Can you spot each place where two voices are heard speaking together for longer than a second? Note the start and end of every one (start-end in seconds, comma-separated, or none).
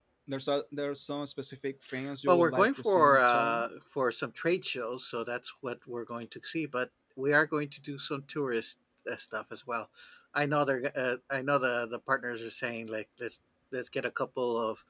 2.3-3.7